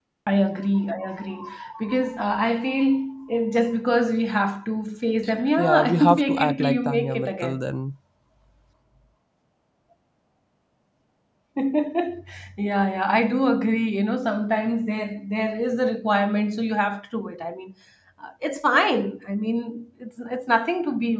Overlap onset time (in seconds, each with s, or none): 5.6 s